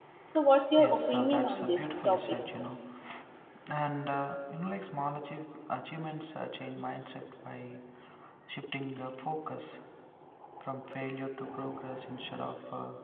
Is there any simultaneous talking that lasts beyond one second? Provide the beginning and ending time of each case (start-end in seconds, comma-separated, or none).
0.8-2.4